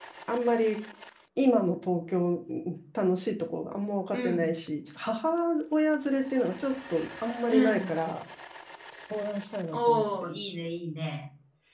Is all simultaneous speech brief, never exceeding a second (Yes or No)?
Yes